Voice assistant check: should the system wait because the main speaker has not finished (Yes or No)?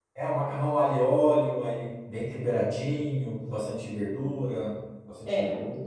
No